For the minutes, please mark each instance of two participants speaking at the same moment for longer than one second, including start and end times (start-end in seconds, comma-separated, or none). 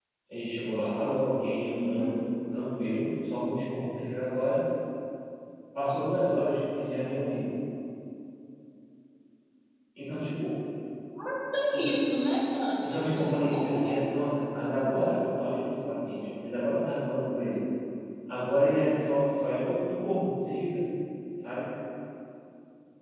12.8-14.2